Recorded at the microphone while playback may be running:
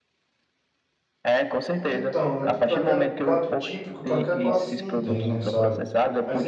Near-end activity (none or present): present